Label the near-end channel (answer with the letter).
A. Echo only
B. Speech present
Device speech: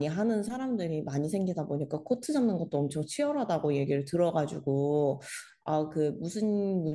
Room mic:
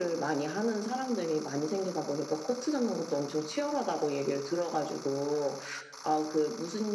A